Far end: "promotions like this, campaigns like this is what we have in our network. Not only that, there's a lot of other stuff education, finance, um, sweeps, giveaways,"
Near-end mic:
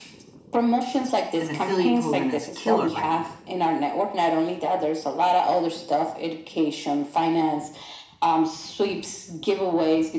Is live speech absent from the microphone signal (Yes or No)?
No